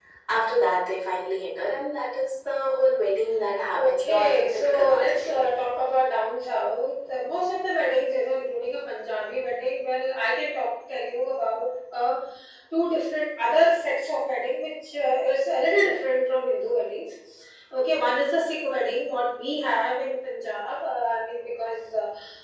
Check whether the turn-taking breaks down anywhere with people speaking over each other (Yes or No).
Yes